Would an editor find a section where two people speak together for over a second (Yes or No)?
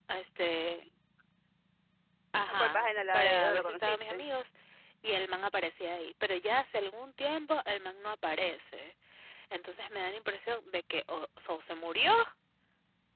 Yes